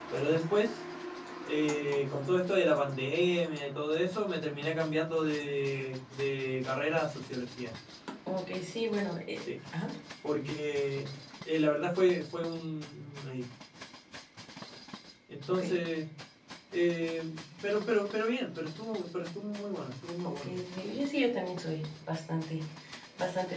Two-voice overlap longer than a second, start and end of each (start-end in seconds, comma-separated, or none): none